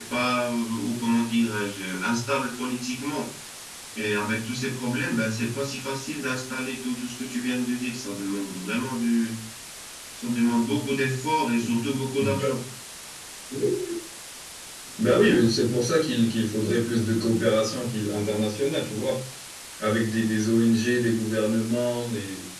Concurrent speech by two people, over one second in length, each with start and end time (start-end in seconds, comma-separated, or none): none